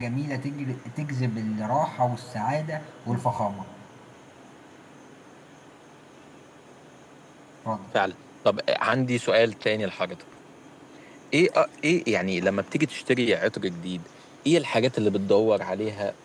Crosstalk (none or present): none